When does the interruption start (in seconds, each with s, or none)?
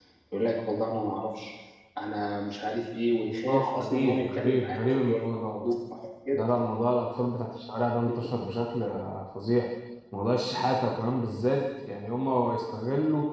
3.5 s